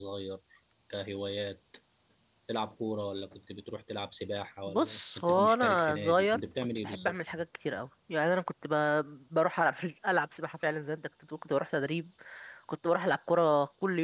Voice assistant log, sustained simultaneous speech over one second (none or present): present